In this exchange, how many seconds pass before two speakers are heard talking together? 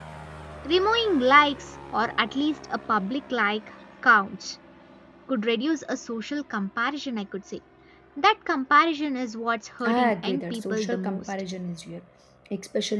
9.8 s

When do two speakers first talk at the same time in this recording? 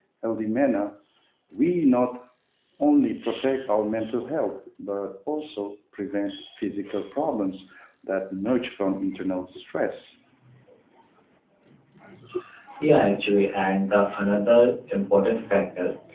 none

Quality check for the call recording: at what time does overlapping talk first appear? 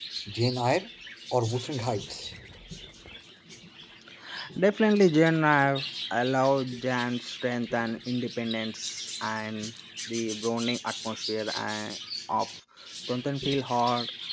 none

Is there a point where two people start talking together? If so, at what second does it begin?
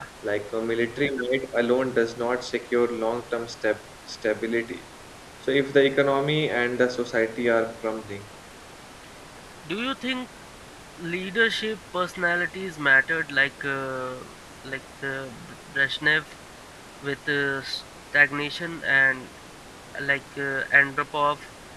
none

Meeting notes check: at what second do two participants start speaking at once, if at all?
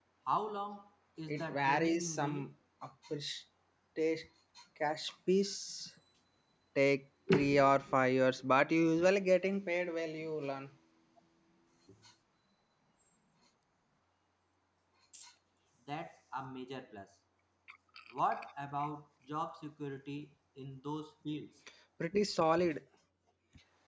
1.3 s

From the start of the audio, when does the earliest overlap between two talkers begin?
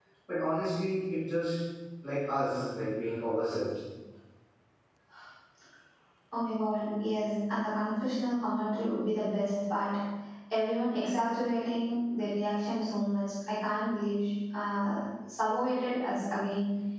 none

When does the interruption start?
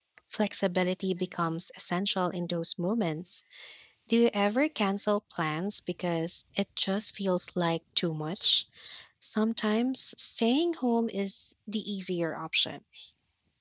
none

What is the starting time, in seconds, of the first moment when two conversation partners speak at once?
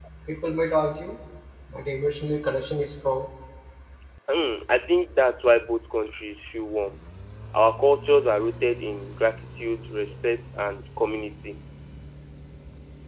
none

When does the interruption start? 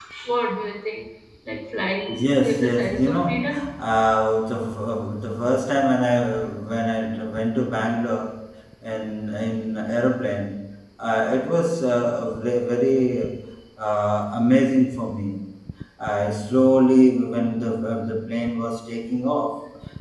2.1 s

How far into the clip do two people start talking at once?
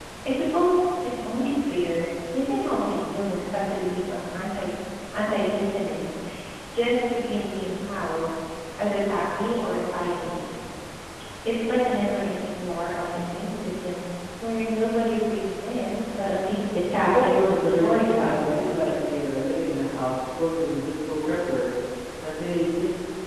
17.0 s

